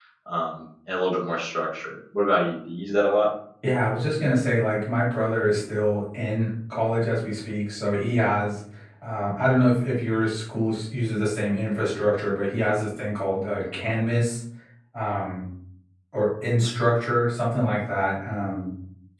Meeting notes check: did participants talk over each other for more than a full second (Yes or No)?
No